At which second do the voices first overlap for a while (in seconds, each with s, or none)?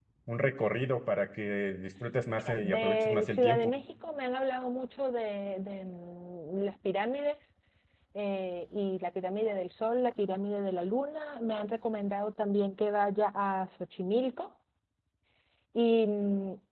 2.4 s